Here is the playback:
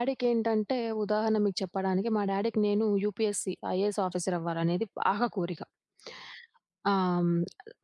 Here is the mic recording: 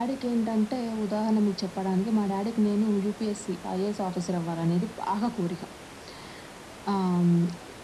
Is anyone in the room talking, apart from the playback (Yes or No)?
No